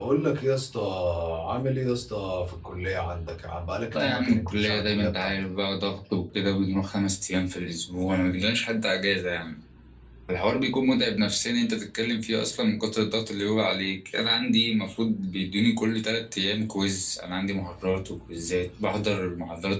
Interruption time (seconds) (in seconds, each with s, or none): 3.9 s